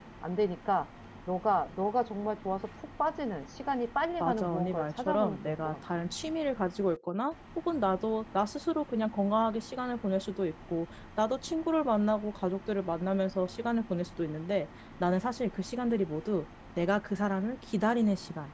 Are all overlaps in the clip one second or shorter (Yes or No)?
No